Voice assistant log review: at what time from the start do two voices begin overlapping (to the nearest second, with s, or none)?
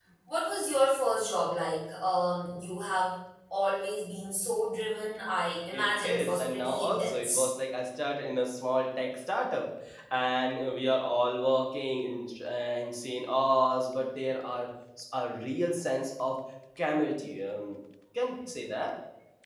6 s